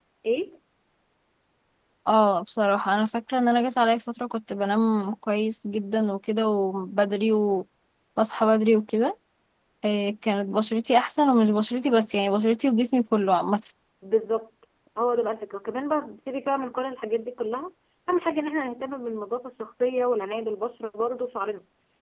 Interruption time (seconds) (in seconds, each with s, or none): none